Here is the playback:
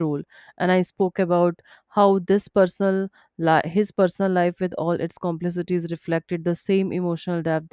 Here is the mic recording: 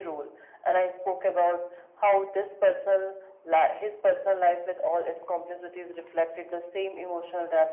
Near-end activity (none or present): none